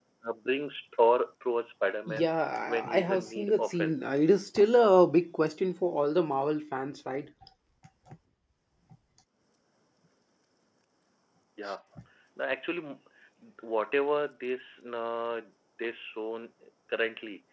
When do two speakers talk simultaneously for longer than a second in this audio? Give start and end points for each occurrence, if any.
2.7-4.0

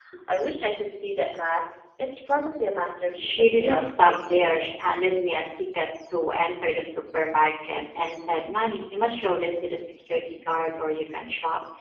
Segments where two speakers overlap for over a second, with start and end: 3.2-4.7

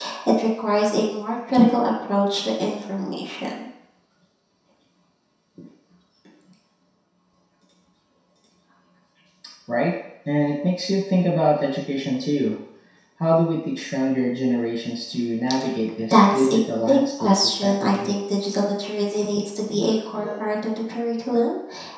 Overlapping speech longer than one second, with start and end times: 16.1-18.1

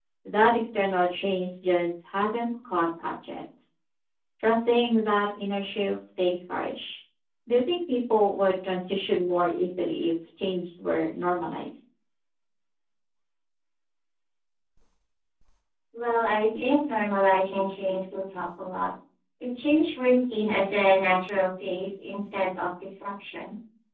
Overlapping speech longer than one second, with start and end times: none

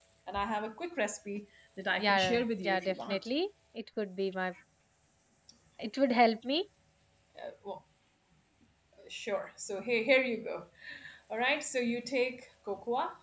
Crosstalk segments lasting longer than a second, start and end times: 1.9-3.3

